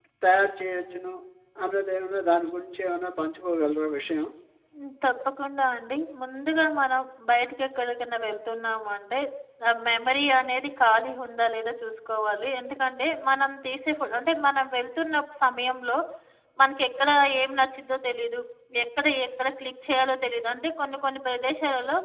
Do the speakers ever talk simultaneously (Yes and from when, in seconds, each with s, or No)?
No